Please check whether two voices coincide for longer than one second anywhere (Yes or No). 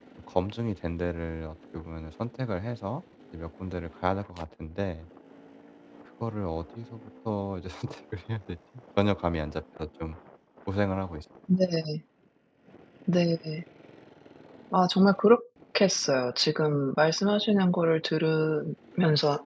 No